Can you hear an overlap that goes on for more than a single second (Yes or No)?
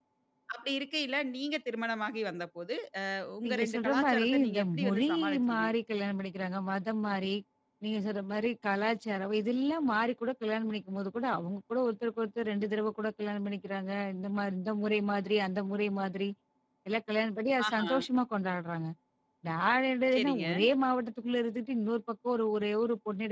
Yes